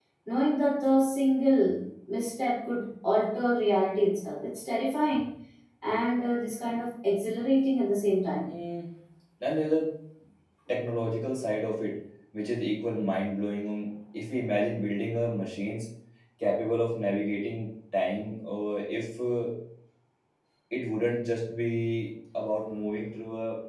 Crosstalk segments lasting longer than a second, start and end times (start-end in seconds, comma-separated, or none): none